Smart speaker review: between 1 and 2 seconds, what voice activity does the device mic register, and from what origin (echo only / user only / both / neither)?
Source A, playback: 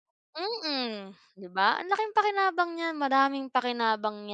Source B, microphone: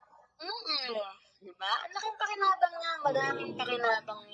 echo only